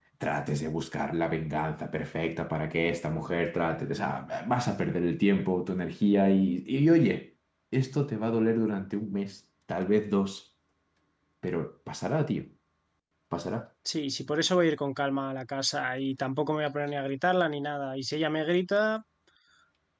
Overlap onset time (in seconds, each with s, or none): none